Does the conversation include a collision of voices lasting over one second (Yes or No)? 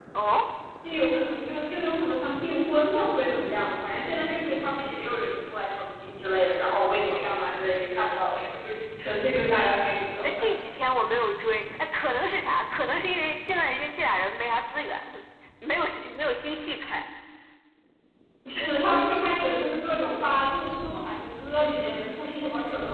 No